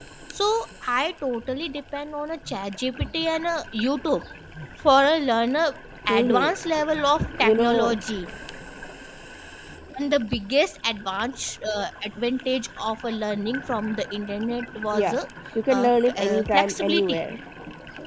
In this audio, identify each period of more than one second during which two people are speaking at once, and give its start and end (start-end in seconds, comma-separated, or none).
15.7-17.2